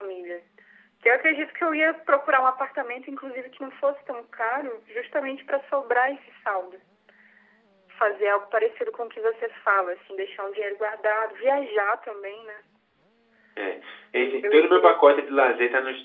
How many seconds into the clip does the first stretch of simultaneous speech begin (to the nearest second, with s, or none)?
14 s